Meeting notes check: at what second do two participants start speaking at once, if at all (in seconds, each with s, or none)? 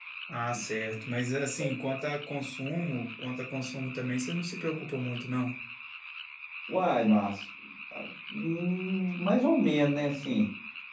none